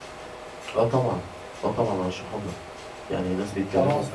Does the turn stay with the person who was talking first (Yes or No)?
Yes